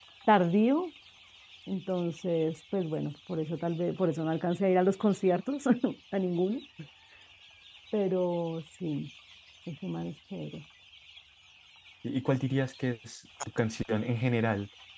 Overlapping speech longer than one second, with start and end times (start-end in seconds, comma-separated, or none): none